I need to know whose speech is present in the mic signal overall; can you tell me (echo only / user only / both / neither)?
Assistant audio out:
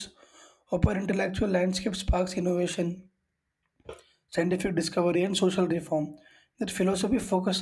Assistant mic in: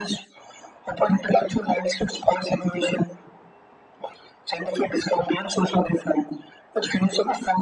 echo only